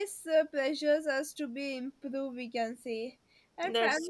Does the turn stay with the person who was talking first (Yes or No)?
Yes